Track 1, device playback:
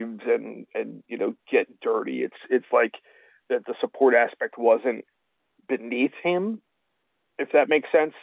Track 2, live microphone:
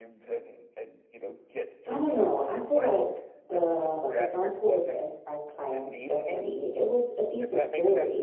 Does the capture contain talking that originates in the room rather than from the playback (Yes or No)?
Yes